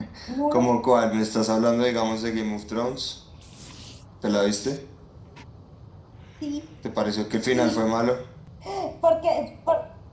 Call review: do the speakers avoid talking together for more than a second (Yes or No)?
Yes